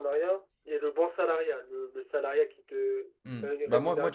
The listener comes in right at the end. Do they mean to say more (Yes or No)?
Yes